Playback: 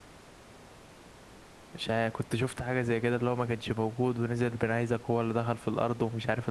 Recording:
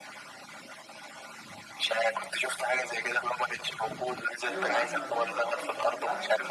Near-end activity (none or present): present